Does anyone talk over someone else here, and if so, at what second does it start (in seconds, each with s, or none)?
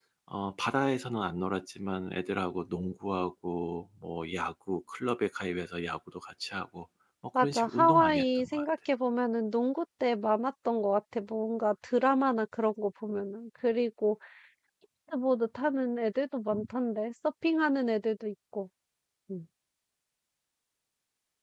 7.3 s